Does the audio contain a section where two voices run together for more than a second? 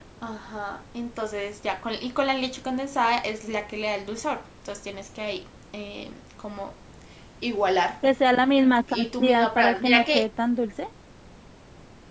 Yes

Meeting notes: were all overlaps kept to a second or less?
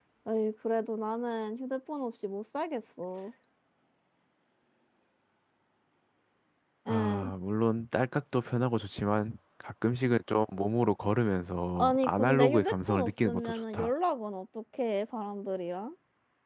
No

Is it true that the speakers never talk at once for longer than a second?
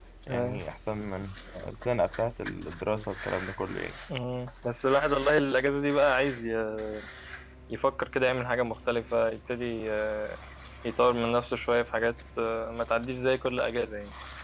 Yes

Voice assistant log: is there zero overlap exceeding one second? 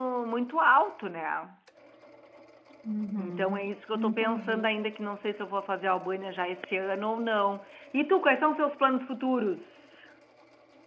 No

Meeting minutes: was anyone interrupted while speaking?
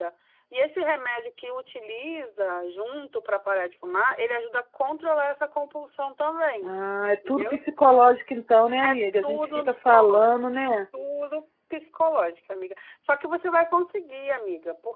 Yes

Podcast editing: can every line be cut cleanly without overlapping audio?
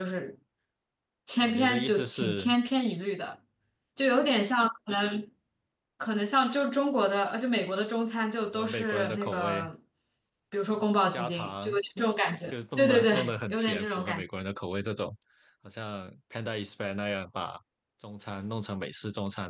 No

